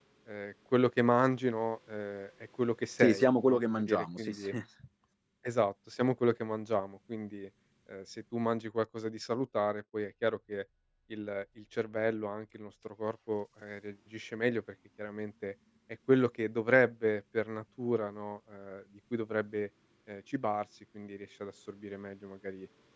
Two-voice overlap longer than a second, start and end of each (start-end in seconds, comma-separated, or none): 3.0-4.5